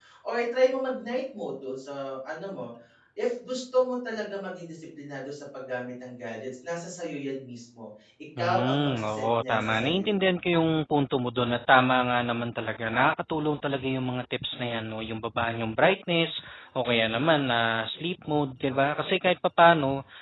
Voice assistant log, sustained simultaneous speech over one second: present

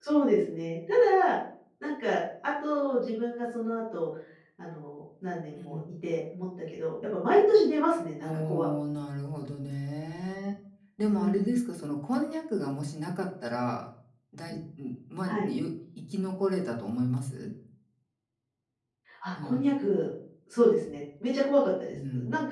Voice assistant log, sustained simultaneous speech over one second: none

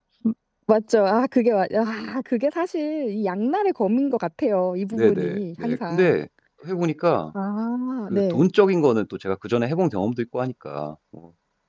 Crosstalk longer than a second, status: present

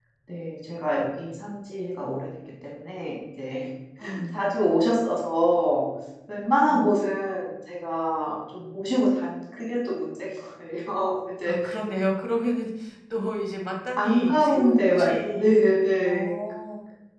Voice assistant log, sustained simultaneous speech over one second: present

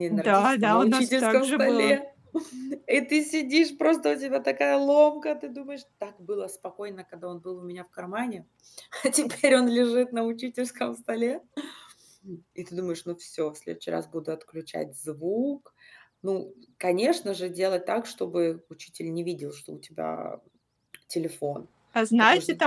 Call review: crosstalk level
present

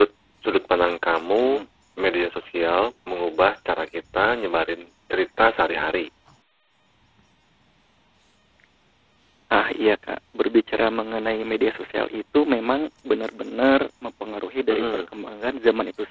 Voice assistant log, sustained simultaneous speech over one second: none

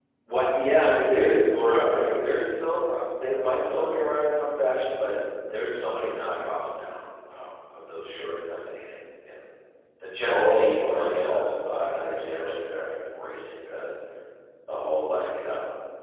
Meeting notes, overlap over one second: present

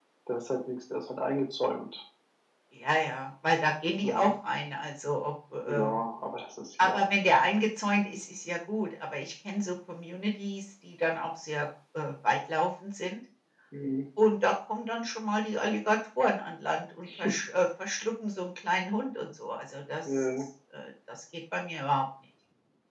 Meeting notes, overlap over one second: none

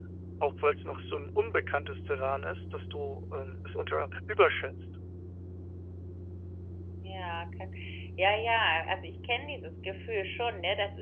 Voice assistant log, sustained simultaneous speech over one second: none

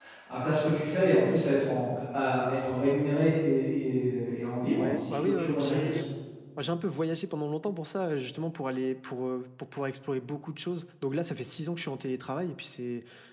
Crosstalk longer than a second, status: present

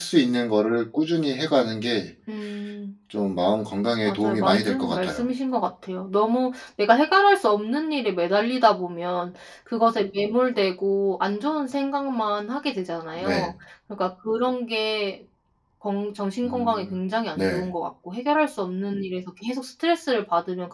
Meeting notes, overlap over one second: present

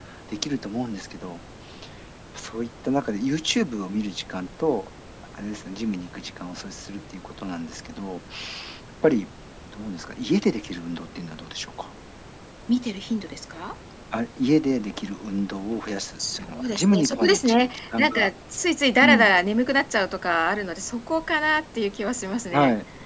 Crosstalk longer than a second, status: present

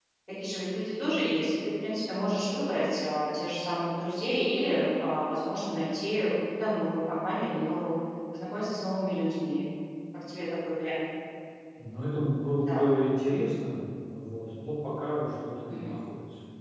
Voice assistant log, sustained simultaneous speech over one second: none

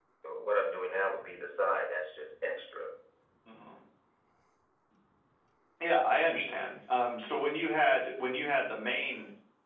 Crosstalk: none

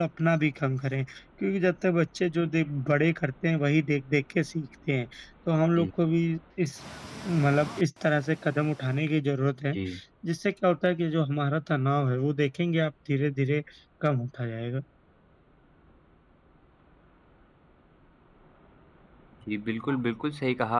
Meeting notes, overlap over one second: none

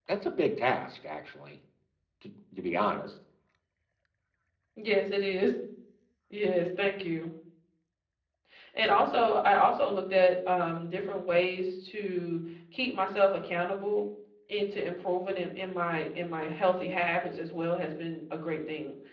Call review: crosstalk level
none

